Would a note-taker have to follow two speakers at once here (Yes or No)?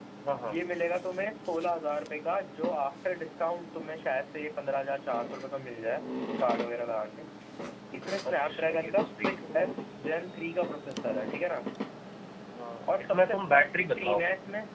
Yes